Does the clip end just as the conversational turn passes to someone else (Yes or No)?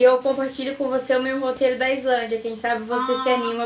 Yes